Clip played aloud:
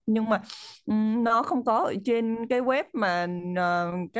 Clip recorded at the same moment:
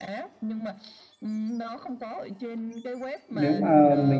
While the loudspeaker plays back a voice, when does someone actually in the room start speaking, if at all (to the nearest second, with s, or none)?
3 s